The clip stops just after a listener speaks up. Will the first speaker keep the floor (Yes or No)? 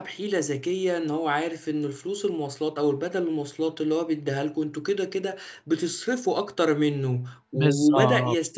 Yes